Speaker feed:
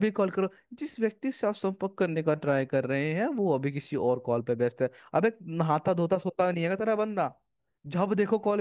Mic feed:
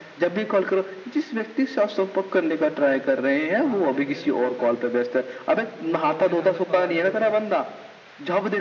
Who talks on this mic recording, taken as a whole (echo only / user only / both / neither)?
both